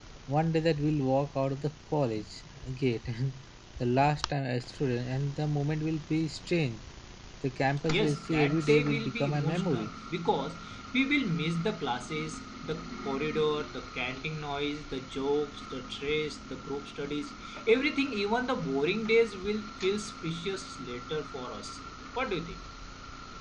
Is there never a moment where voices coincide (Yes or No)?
No